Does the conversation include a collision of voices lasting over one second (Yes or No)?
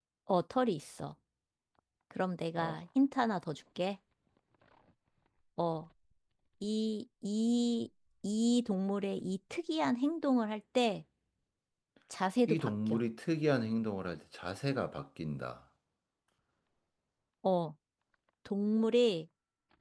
No